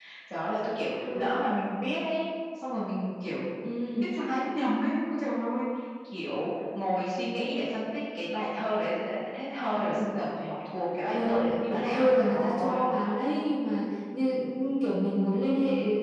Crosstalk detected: Yes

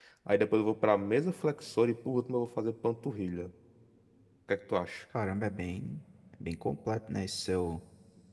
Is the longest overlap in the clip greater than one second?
No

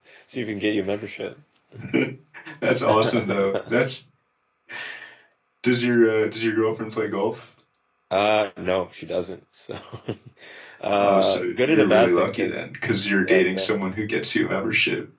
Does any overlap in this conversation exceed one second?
Yes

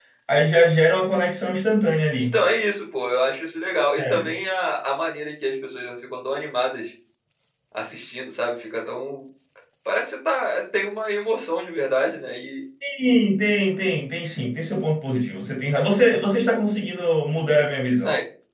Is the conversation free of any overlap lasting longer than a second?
Yes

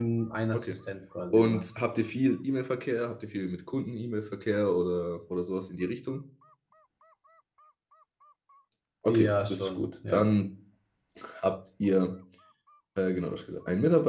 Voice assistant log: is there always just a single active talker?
No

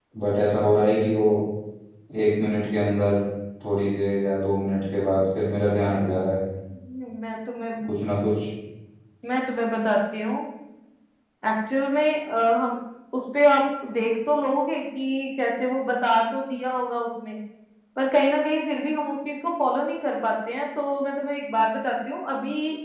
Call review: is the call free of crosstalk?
Yes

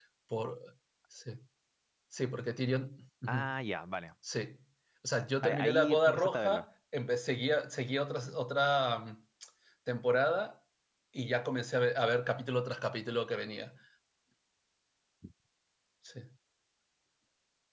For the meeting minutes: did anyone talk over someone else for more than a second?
Yes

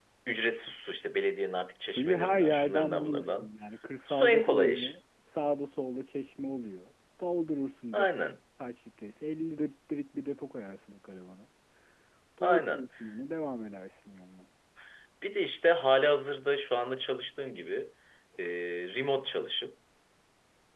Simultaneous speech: Yes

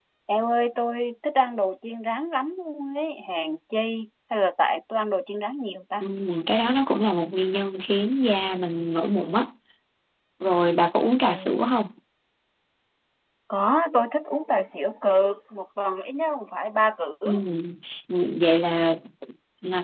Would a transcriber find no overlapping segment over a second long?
Yes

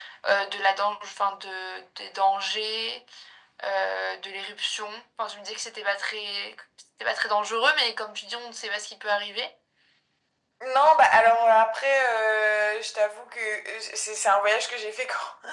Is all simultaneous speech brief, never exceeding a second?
Yes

